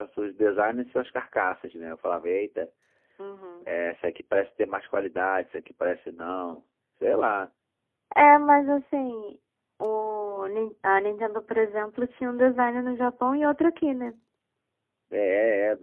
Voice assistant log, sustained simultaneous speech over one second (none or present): none